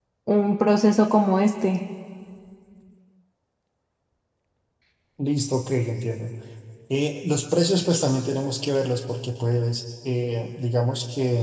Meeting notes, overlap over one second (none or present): none